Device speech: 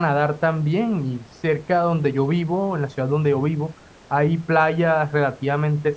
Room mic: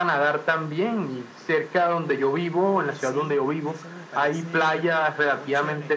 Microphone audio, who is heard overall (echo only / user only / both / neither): both